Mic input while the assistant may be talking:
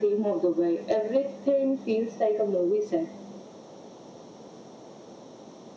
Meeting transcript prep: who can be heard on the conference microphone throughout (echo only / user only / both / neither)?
echo only